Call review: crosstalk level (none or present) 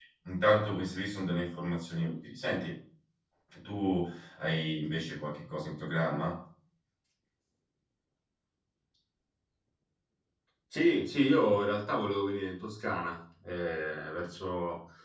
none